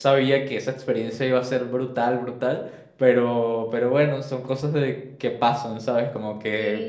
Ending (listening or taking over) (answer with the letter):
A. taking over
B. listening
B